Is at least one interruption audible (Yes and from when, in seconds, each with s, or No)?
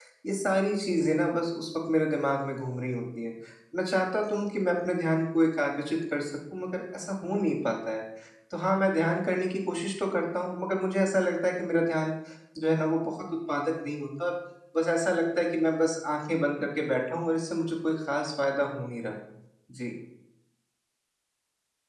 No